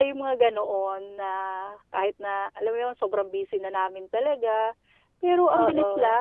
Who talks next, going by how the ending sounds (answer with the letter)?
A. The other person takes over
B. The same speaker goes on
B